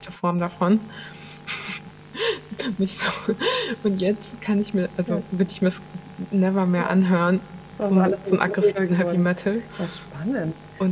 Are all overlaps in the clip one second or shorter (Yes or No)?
No